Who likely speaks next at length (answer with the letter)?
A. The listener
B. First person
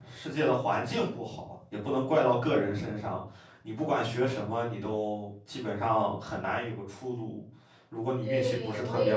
A